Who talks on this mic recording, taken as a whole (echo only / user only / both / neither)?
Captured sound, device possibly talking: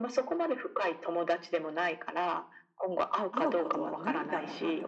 both